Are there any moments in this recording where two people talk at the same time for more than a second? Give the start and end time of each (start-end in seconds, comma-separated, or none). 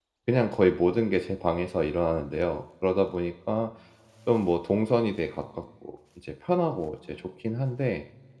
none